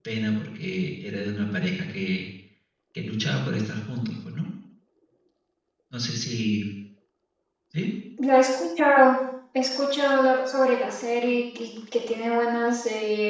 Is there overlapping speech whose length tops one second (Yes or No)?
No